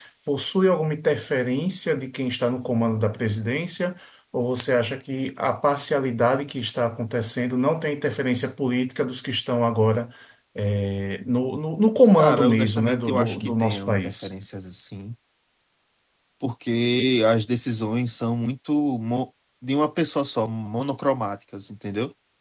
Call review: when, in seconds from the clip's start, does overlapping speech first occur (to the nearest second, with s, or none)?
12 s